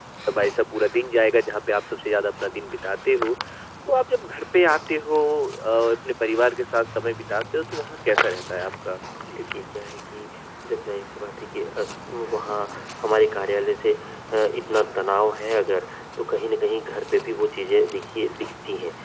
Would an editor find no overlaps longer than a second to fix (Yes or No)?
Yes